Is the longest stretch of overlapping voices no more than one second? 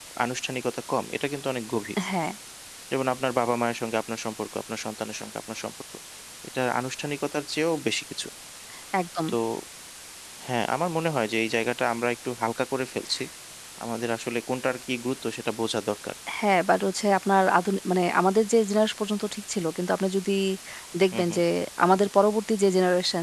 Yes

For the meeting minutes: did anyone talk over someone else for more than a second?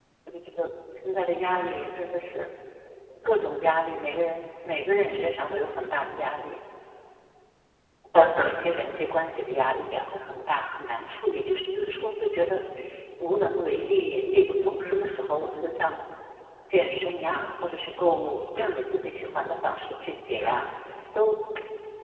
No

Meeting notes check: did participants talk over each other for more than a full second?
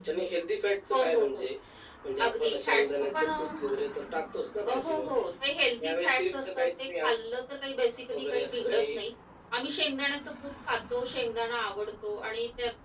Yes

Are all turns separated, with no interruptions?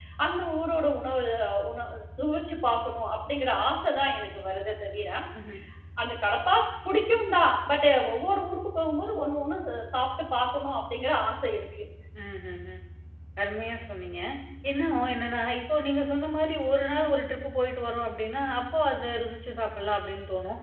Yes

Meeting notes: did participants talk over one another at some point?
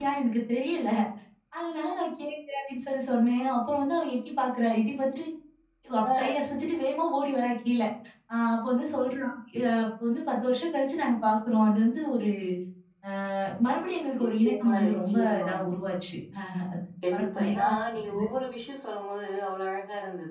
Yes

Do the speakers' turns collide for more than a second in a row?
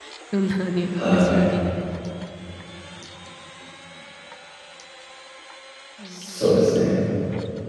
No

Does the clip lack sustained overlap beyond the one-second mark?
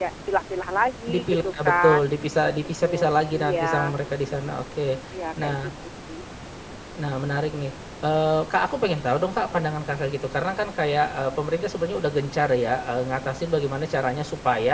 No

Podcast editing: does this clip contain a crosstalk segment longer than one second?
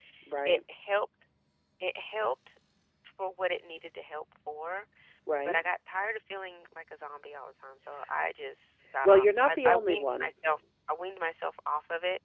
Yes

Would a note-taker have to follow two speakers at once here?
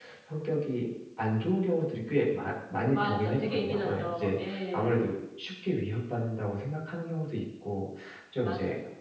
Yes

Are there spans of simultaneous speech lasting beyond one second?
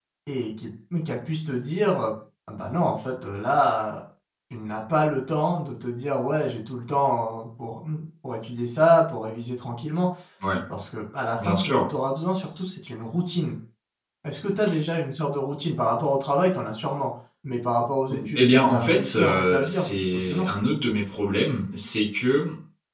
Yes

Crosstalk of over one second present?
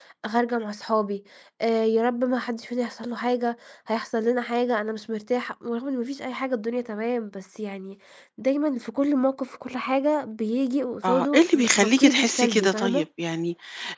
Yes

